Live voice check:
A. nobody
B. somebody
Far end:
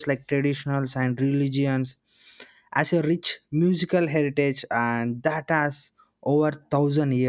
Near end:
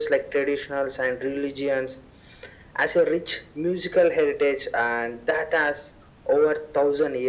A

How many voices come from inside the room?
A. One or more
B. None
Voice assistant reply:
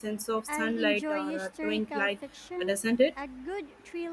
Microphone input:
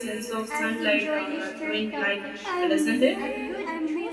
A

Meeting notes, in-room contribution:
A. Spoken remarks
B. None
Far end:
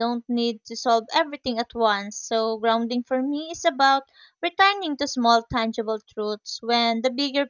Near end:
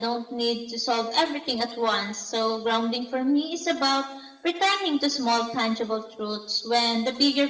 B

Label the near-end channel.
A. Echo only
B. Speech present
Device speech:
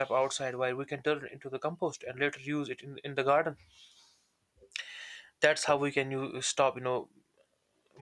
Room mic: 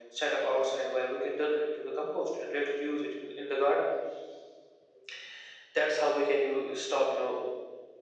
A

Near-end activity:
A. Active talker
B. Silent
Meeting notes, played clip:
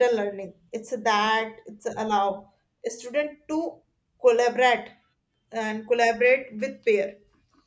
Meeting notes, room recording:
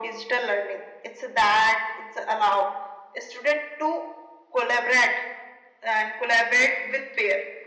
B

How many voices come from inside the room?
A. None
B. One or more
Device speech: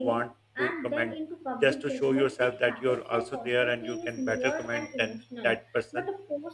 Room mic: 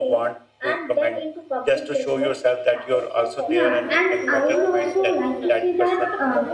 B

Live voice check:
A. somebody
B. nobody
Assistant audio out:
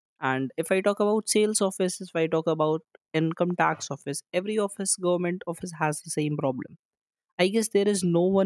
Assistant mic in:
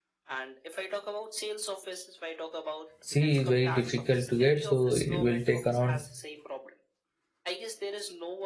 A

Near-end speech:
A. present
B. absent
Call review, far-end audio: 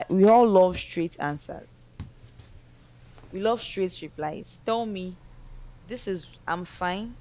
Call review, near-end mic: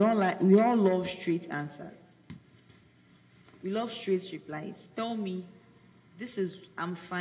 B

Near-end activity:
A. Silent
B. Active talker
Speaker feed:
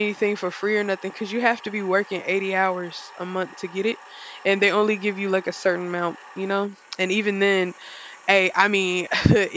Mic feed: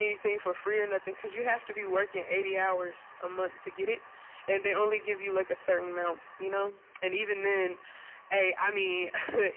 A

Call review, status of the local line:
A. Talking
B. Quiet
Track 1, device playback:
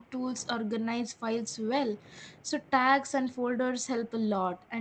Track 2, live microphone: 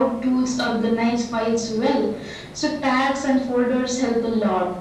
B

